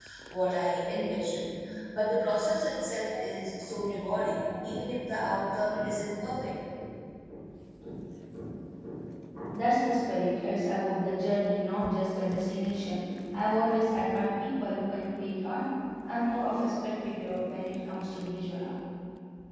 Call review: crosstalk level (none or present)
none